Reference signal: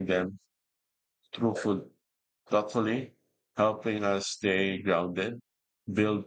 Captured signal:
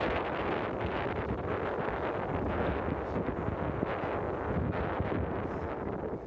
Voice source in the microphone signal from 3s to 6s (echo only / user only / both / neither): neither